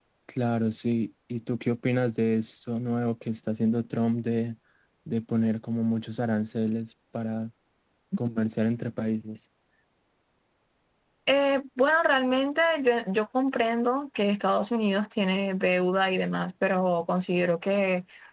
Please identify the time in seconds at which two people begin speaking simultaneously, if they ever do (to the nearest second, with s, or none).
none